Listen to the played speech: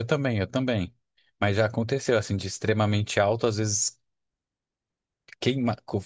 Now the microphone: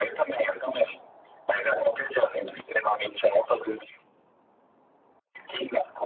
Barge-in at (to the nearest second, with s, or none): none